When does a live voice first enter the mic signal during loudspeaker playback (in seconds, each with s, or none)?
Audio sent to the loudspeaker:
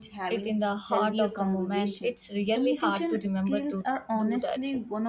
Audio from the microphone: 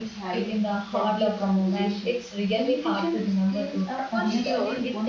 4.0 s